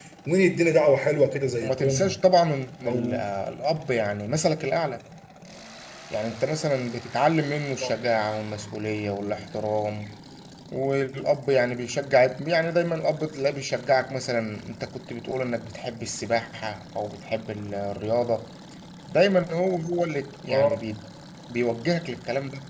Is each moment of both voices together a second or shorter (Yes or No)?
Yes